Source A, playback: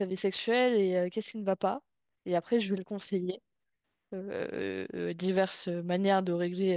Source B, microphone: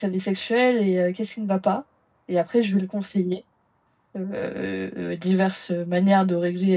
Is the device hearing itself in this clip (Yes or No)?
Yes